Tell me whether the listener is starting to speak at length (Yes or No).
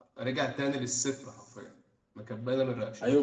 Yes